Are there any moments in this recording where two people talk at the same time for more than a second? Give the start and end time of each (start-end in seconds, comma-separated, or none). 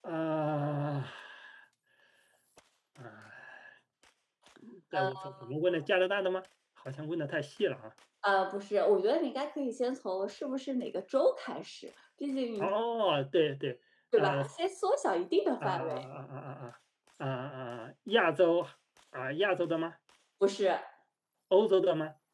none